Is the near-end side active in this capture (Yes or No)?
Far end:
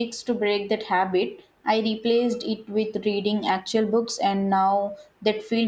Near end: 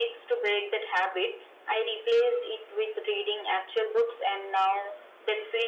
No